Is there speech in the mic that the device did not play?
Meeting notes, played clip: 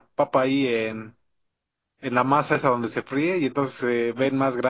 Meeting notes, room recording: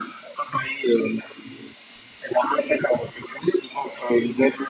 No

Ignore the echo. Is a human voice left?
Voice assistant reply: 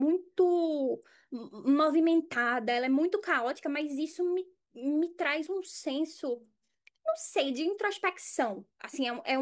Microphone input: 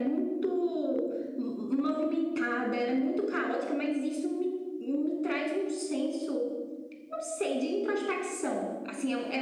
No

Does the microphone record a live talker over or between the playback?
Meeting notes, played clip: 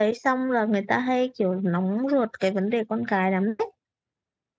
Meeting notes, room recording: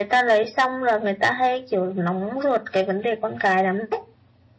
No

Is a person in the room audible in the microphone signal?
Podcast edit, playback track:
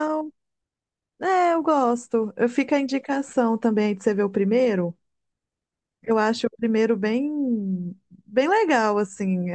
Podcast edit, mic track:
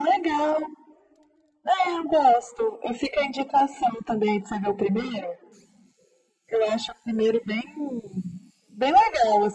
No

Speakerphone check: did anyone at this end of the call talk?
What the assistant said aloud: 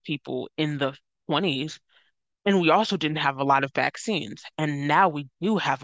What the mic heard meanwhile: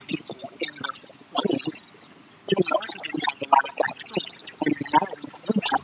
No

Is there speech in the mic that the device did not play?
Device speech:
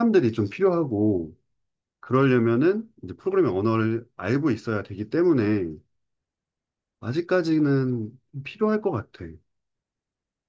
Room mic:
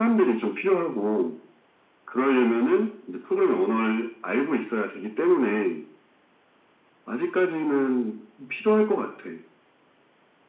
No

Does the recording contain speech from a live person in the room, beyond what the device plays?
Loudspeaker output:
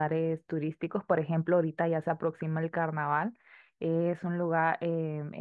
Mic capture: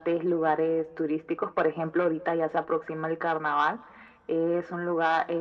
No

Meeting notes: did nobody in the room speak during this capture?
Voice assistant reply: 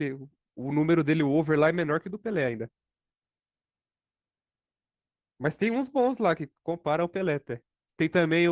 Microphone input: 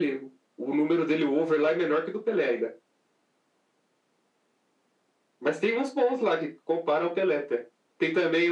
Yes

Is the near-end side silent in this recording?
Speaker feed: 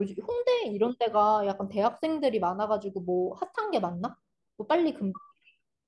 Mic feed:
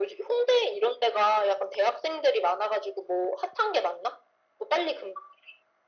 Yes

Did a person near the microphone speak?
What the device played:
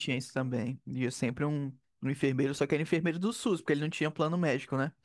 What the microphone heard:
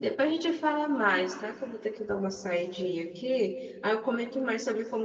Yes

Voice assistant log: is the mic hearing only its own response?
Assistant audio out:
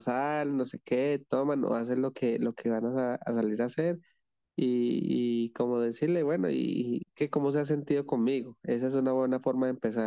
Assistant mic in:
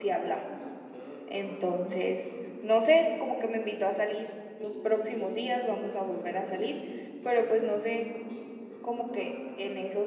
No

